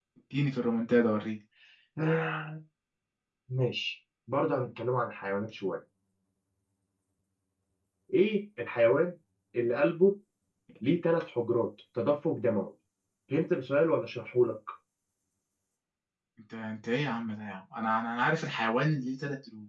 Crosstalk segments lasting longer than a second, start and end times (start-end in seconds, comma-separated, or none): none